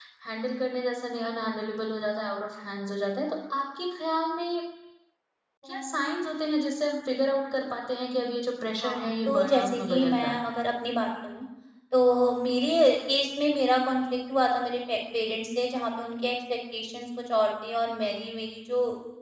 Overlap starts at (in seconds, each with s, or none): 8.8 s